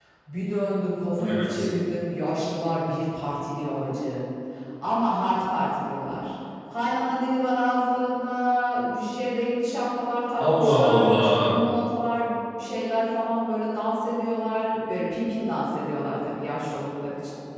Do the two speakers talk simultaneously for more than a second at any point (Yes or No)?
Yes